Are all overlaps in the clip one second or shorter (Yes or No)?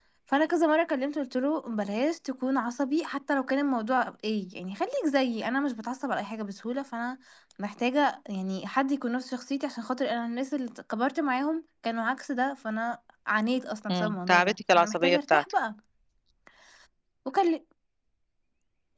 No